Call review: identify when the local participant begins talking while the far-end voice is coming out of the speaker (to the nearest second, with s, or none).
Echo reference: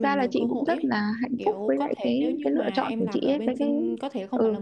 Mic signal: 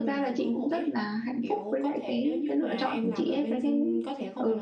none